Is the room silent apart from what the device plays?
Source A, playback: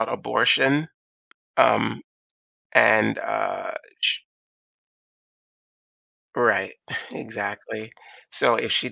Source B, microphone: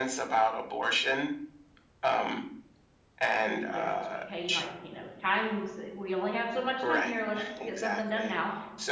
No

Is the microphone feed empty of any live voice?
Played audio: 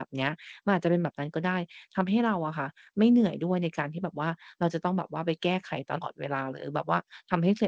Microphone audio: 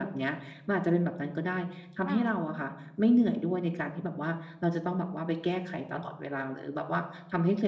No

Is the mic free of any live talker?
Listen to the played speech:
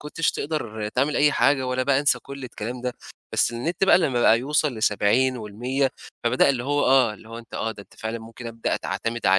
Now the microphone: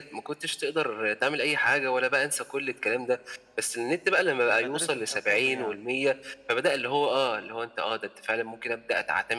No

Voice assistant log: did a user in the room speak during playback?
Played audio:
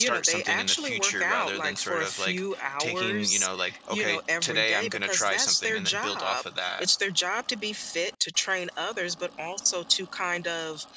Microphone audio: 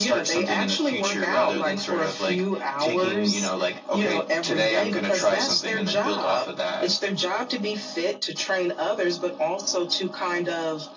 No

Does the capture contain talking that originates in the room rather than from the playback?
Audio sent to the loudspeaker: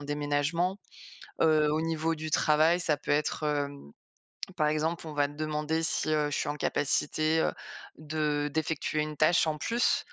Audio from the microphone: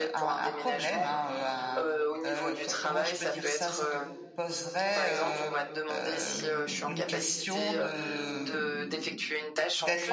Yes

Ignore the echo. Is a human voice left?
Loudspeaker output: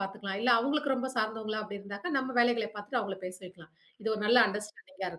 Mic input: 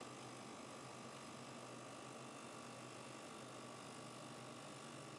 No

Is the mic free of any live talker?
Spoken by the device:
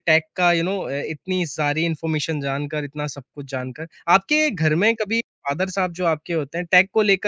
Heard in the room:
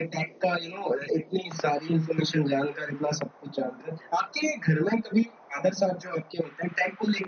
Yes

